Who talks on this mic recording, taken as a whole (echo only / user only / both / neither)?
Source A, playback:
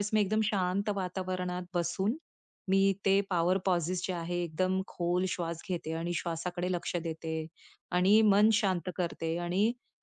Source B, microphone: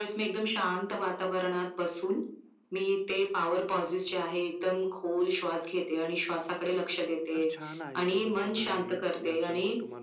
both